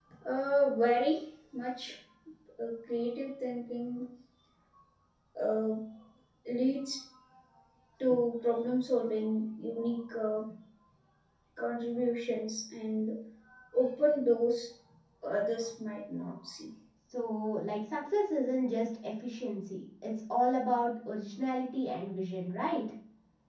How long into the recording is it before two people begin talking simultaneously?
none

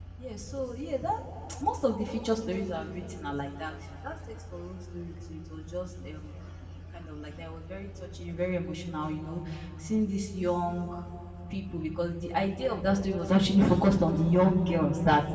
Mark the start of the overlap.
none

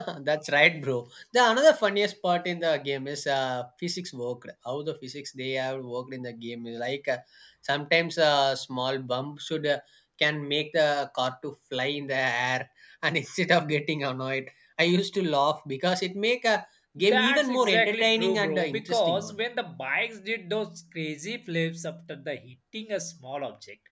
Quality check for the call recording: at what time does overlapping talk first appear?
17 s

